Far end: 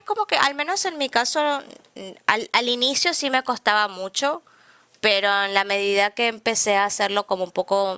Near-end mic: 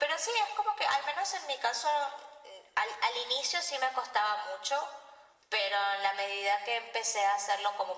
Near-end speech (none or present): none